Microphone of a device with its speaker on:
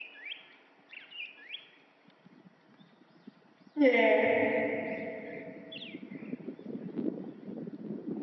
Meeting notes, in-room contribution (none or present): present